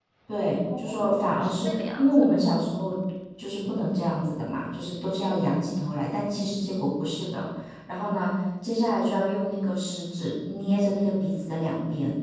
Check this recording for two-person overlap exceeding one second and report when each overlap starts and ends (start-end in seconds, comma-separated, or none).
0.8-2.2